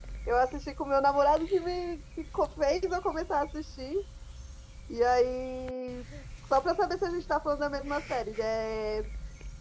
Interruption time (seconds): none

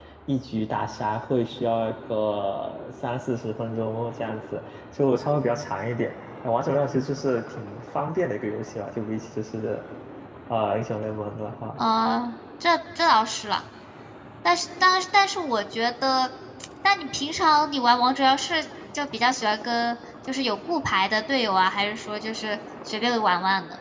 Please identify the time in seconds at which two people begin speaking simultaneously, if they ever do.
none

